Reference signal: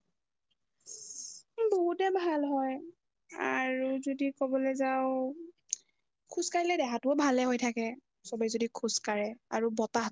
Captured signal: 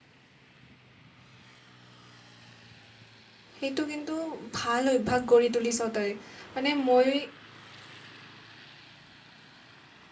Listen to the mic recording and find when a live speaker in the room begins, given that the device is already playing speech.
4 s

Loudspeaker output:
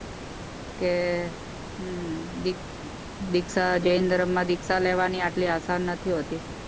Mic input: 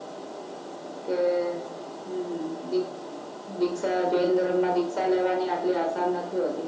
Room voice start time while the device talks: none

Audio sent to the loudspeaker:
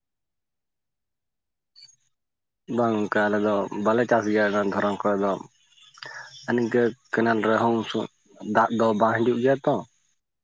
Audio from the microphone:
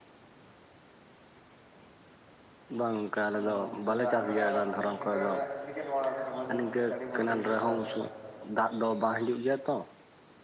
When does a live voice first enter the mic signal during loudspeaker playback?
3 s

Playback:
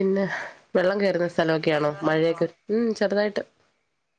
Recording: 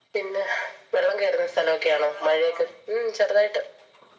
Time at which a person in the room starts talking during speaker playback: none

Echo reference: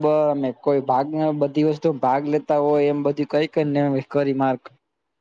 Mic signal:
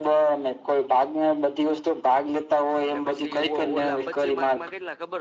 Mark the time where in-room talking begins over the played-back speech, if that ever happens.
3 s

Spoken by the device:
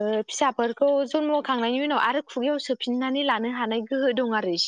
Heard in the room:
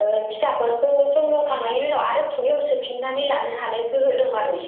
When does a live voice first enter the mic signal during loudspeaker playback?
none

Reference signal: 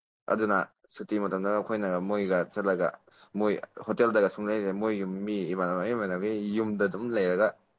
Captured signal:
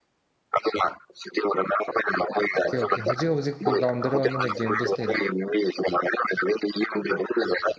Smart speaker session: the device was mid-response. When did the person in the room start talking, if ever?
3 s

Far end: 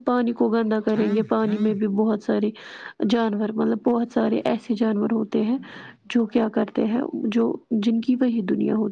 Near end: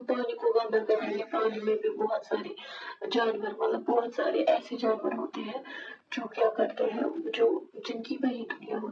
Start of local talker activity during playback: none

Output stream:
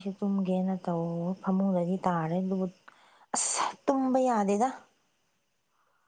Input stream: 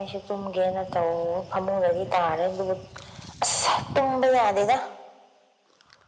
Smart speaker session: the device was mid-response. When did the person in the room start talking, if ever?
none

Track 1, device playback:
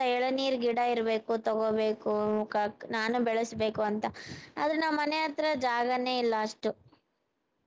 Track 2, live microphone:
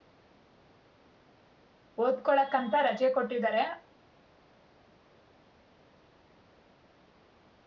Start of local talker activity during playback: 2 s

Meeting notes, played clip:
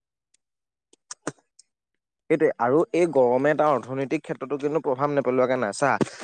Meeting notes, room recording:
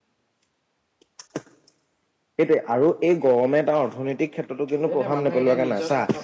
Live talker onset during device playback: 5 s

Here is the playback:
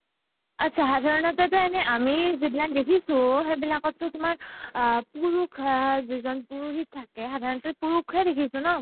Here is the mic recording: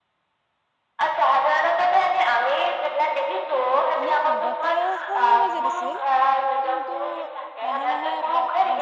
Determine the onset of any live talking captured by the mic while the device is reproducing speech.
4 s

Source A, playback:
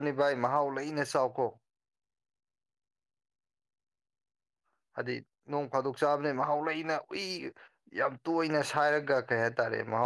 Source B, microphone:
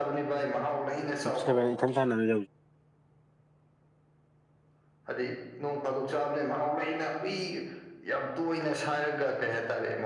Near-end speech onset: 1 s

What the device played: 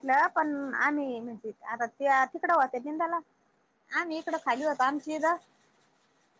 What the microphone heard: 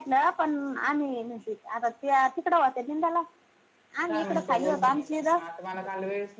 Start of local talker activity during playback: 4 s

